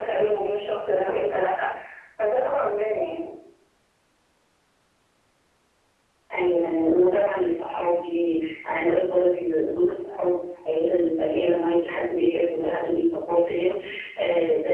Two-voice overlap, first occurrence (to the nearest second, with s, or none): none